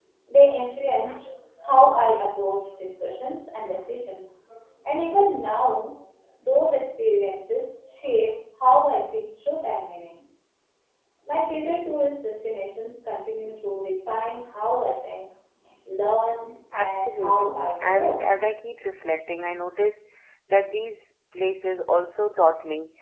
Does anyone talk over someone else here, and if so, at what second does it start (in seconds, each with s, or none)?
16.7 s